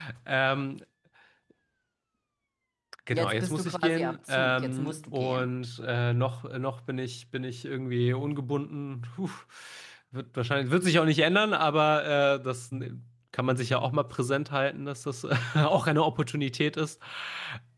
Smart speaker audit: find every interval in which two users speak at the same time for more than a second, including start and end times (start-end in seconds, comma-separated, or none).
3.1-5.5